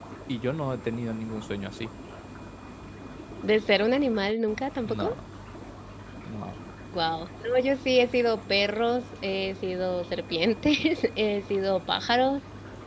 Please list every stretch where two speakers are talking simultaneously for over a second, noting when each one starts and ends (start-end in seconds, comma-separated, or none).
none